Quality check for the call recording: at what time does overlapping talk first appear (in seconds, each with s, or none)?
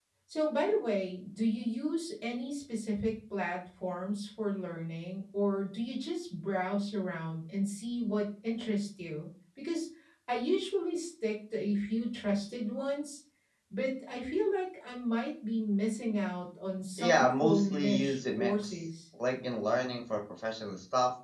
17.0 s